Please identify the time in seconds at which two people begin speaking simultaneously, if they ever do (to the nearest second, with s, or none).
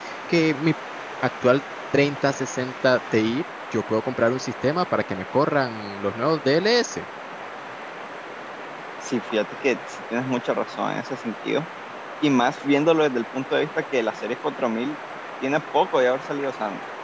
none